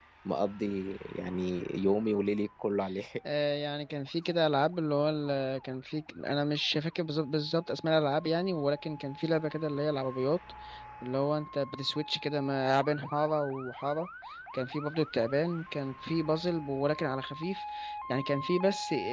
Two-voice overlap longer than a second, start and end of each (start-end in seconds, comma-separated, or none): none